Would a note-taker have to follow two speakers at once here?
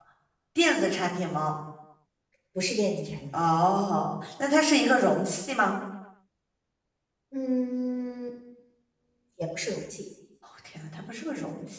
No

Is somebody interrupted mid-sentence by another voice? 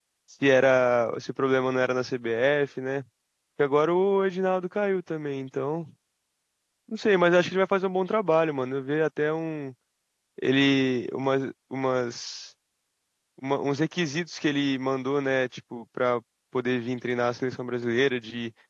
No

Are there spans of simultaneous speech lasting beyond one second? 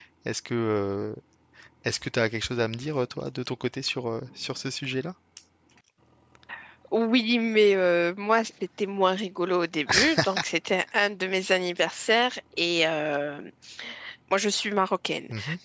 No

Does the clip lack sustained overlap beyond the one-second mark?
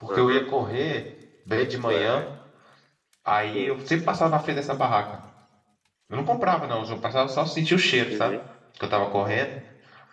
Yes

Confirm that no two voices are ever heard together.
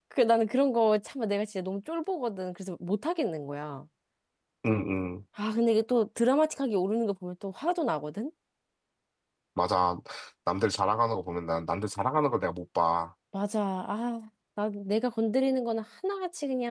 Yes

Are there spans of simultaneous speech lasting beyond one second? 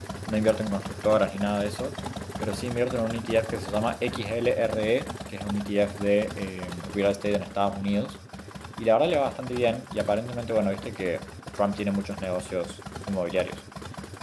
No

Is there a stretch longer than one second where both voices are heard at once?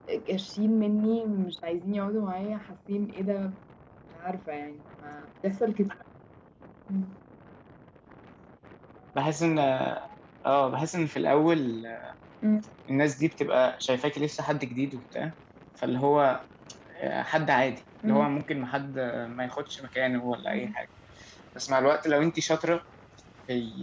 No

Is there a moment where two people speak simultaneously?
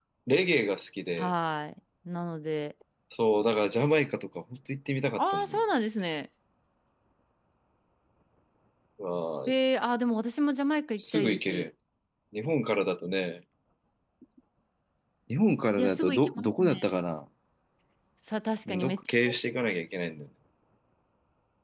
Yes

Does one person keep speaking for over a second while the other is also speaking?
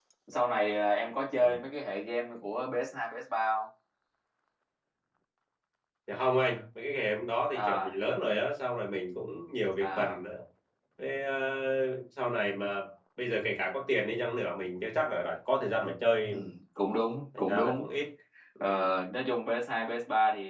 No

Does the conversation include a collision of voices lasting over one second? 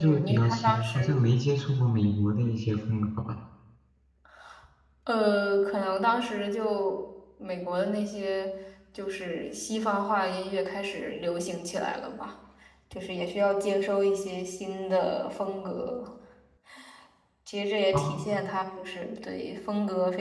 Yes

